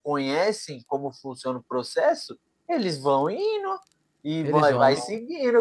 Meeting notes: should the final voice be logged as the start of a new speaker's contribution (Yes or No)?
No